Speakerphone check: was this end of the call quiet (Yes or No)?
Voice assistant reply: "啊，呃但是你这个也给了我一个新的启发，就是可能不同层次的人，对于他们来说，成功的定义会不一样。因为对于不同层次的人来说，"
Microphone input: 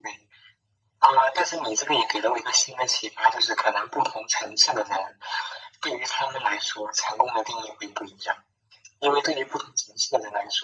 Yes